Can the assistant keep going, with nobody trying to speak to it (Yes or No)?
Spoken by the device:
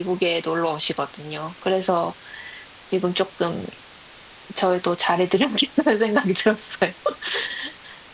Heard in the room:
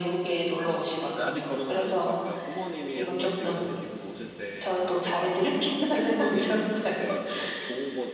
No